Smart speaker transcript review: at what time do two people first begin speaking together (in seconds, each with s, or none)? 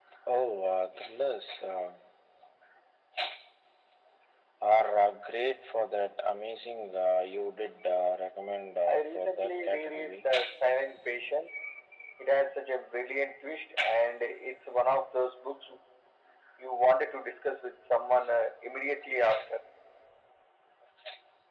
8.8 s